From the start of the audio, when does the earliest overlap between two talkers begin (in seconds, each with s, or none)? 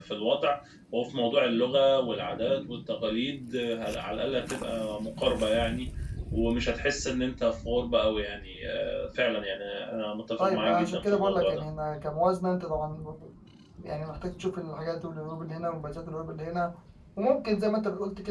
10.4 s